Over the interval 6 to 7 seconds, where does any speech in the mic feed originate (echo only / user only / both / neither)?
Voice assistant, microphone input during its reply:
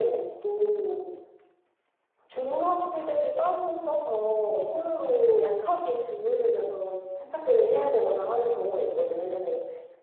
echo only